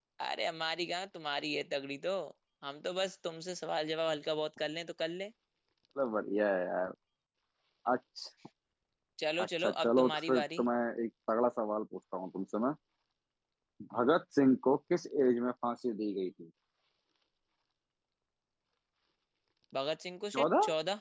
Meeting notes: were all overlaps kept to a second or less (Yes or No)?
No